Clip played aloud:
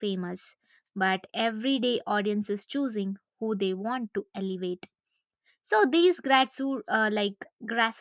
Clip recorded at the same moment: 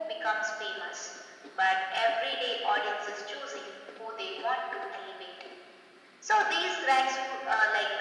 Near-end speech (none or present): none